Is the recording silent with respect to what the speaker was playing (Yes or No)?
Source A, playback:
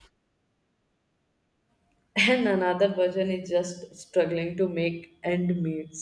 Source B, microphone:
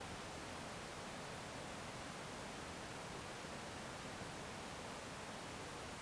Yes